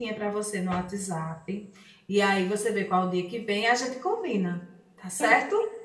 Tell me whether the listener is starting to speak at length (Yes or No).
Yes